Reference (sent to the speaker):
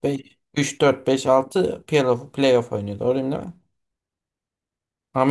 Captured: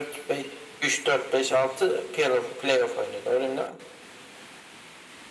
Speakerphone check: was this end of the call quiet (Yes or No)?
Yes